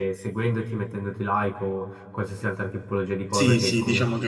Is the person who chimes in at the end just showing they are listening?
No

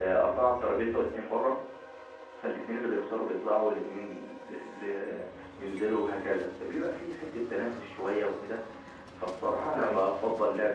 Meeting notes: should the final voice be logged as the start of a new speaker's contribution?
No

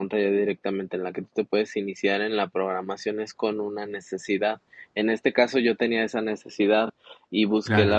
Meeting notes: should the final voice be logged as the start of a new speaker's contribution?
No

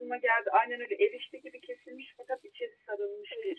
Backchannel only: No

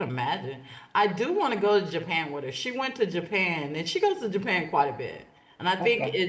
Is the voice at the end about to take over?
No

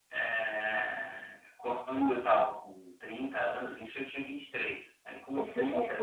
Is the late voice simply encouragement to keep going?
No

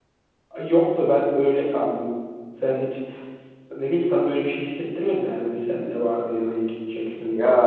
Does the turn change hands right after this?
Yes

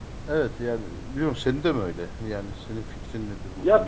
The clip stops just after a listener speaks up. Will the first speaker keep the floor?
No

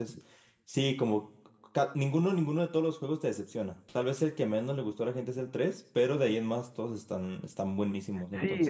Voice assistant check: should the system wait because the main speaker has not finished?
No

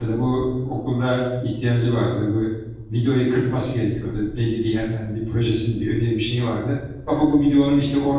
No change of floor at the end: Yes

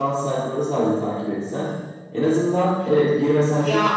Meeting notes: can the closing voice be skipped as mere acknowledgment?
Yes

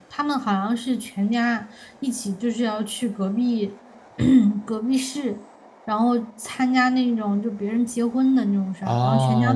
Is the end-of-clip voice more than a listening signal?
Yes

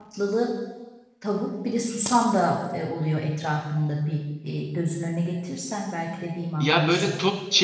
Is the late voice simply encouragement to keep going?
No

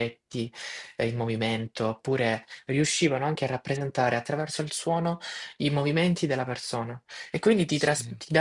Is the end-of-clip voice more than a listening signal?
No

